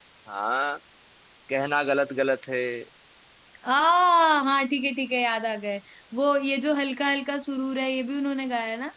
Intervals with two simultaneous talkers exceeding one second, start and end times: none

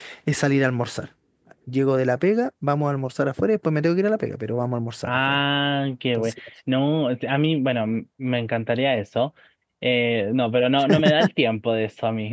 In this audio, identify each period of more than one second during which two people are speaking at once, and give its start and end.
none

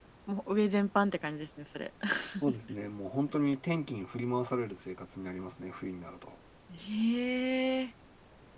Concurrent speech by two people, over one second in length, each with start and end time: none

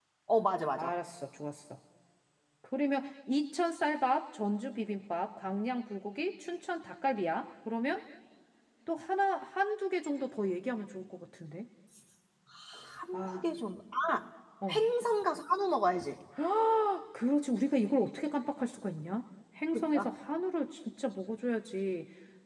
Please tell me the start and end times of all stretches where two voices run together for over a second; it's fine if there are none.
none

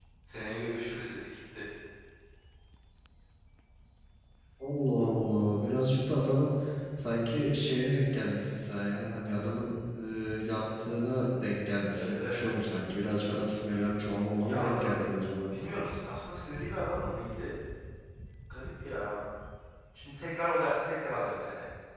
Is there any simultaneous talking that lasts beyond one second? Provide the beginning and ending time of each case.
none

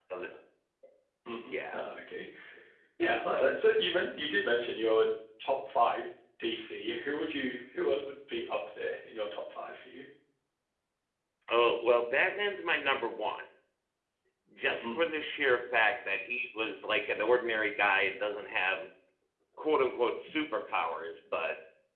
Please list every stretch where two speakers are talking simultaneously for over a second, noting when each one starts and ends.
none

